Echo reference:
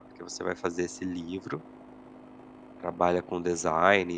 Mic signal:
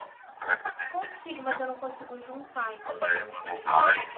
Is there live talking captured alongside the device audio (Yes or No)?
Yes